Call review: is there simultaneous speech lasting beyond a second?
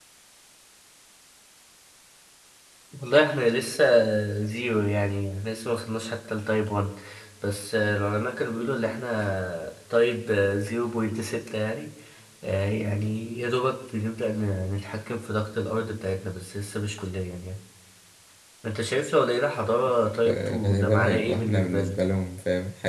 Yes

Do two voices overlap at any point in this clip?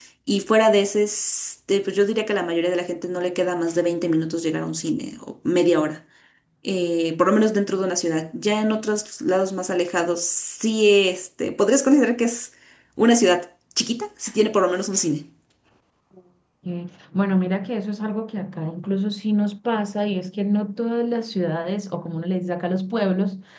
No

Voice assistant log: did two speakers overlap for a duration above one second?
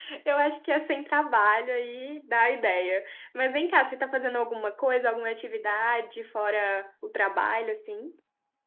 No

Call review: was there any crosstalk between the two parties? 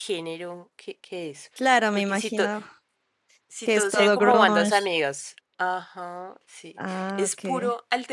Yes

